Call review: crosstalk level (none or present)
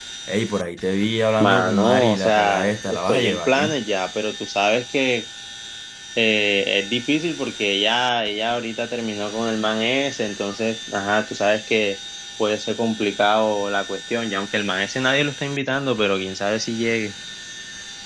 present